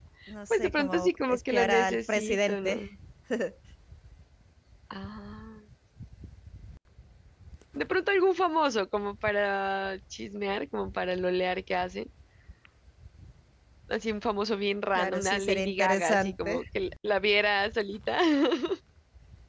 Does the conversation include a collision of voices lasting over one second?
Yes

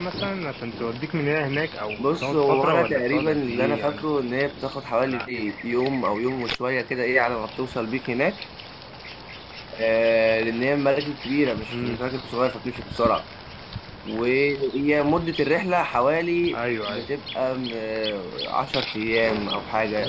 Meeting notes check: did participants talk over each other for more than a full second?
Yes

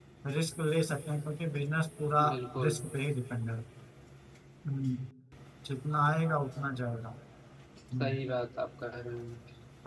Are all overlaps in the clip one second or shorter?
Yes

